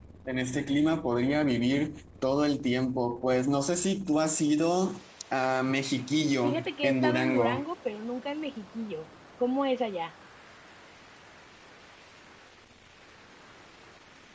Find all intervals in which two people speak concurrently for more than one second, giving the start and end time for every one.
6.4-7.6

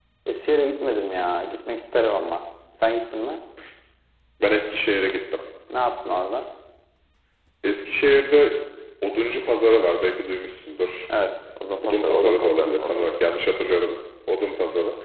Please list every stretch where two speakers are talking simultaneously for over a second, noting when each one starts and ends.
11.8-13.1

